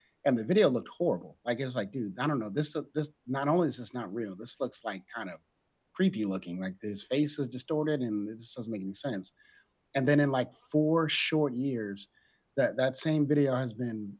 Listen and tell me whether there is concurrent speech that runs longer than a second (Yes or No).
No